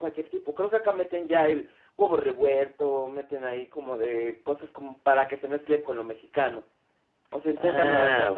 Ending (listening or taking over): taking over